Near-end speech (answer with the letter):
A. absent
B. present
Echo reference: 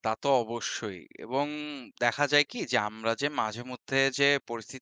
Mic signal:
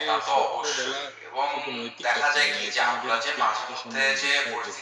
B